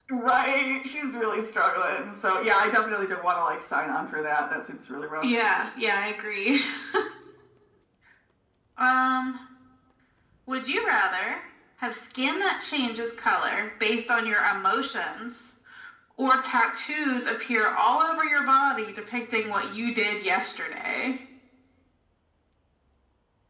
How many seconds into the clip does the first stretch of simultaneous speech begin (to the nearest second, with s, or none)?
none